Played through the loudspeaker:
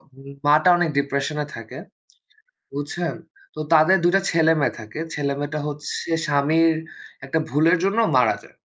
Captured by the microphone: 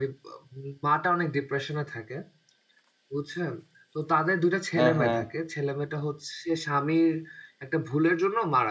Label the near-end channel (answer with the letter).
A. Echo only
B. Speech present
B